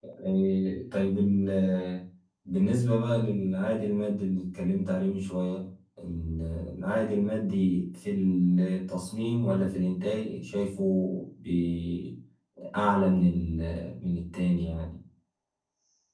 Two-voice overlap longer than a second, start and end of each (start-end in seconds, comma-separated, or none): none